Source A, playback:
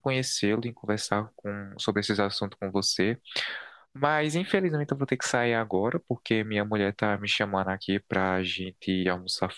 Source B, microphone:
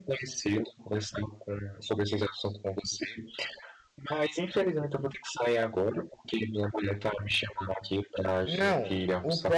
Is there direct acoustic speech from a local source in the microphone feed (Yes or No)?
Yes